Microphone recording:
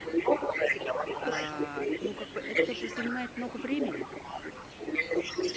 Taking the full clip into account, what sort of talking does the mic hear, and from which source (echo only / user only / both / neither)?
both